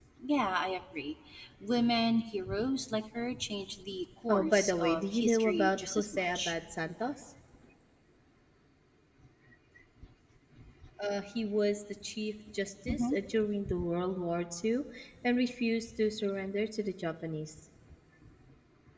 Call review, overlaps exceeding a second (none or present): present